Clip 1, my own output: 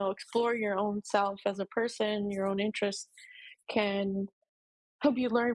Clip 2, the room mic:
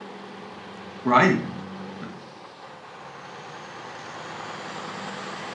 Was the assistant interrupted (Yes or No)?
Yes